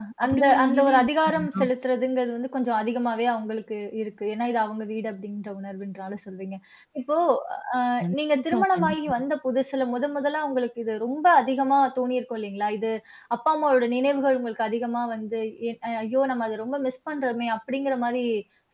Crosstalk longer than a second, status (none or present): present